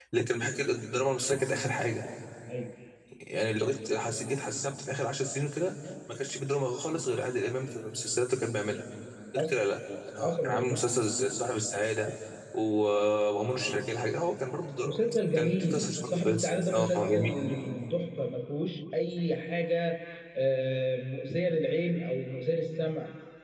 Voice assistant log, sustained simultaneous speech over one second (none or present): present